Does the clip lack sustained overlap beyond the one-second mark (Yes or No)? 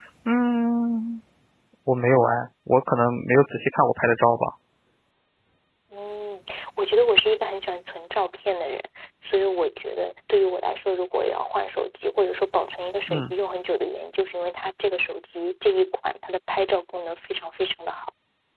Yes